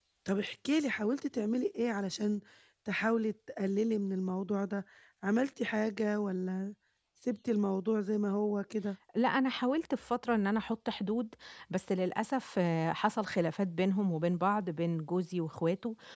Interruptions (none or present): none